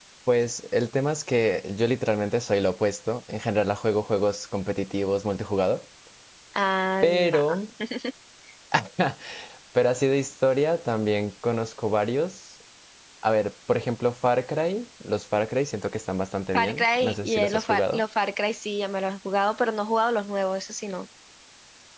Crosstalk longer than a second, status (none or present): present